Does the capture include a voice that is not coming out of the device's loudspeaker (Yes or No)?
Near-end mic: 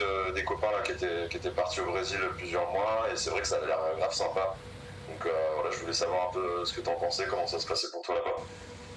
No